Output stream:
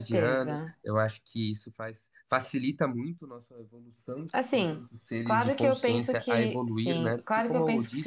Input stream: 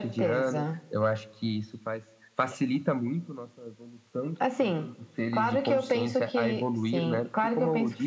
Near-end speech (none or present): none